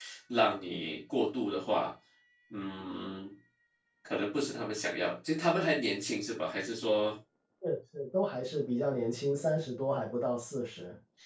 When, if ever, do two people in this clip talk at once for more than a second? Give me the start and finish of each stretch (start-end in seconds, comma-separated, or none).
none